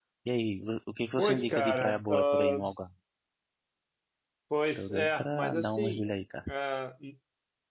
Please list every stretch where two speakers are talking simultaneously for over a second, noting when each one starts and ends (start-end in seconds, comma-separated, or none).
1.2-2.6, 4.8-6.0